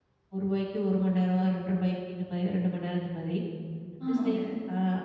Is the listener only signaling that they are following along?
Yes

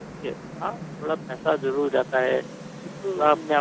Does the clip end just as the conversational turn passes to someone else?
No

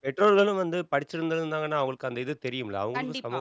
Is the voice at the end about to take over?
Yes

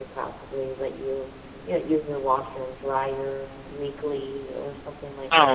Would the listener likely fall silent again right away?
No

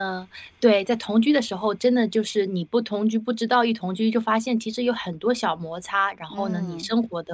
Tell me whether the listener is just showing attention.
Yes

